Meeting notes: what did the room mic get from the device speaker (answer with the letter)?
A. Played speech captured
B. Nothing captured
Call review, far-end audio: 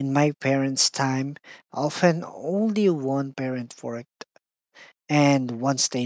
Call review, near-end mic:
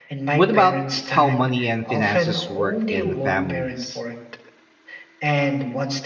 A